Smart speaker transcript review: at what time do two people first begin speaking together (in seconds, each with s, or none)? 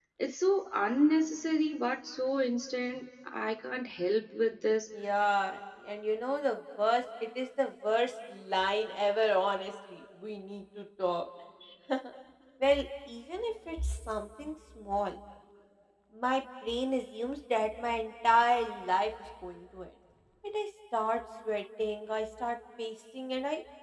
none